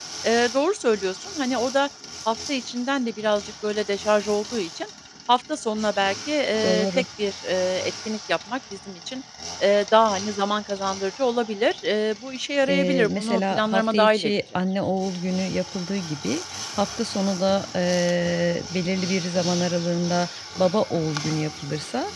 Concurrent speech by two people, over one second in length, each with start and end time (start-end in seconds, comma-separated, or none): 12.7-14.3